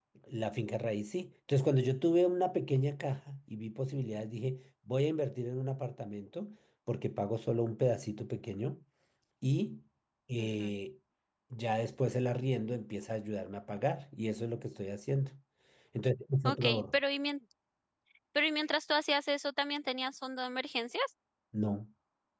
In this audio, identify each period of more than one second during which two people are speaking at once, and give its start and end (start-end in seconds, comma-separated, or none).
none